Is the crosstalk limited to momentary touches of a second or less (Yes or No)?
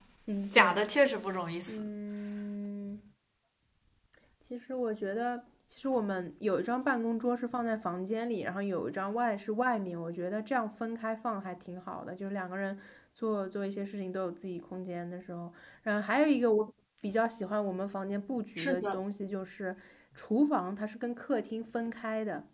Yes